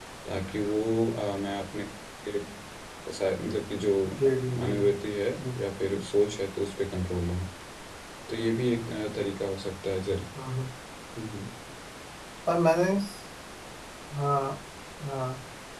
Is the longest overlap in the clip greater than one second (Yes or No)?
No